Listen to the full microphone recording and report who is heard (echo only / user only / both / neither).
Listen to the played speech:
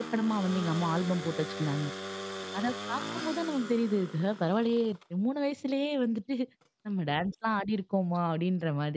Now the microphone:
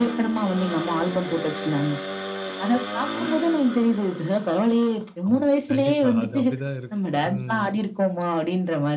both